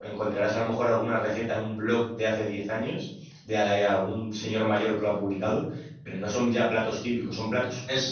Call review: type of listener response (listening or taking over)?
listening